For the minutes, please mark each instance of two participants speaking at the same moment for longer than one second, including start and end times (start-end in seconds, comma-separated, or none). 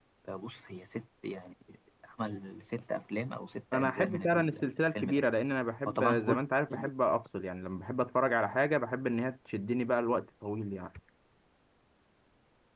3.7-5.2